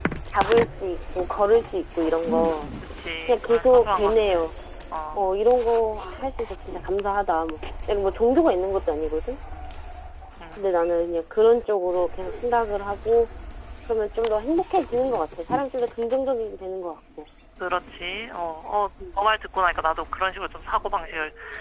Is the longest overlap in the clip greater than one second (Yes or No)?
Yes